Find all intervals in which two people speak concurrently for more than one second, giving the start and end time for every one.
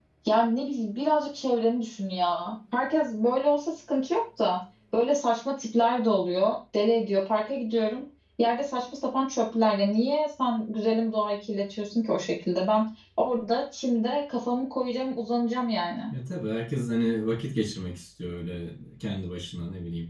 none

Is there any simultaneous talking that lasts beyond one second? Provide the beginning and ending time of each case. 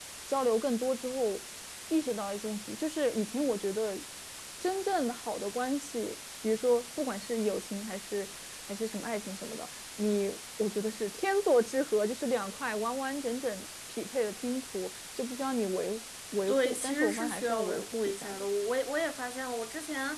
16.5-18.4

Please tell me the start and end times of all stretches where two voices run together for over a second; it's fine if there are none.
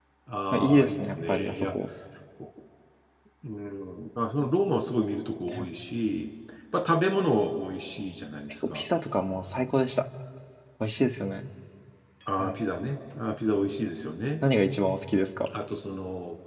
0.5-1.7

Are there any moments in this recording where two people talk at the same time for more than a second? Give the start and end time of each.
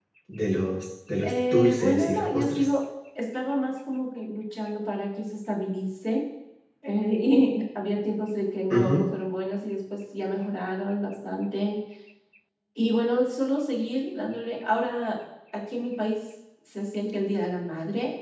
1.2-2.7

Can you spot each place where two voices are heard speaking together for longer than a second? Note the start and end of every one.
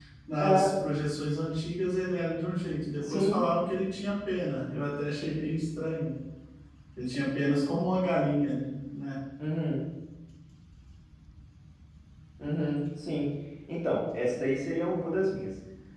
none

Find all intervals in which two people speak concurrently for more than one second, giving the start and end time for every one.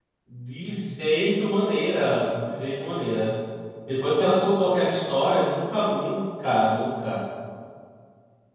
none

